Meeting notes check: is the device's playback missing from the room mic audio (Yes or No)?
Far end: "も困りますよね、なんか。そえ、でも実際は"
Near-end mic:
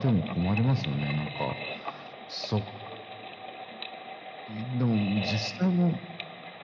No